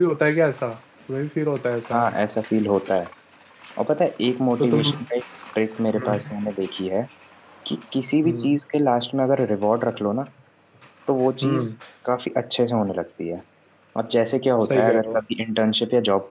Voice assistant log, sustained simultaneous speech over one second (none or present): none